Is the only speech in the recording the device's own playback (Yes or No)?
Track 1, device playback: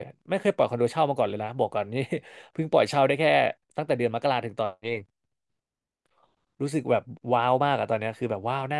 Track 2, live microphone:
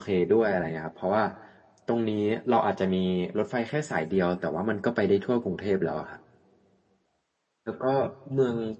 No